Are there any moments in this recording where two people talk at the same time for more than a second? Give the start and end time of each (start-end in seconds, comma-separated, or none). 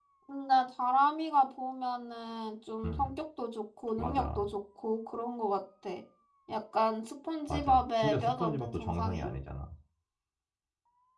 7.5-9.3